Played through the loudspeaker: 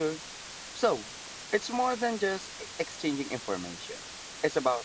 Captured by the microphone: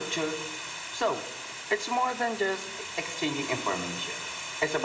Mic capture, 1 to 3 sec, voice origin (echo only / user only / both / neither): echo only